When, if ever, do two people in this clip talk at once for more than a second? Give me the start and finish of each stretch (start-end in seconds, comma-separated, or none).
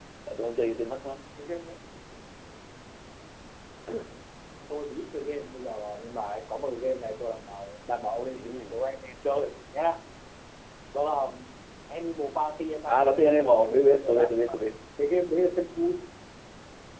12.9-14.5